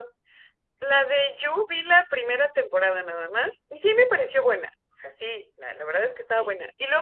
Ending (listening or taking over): listening